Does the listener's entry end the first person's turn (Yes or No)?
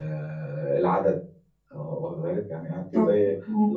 No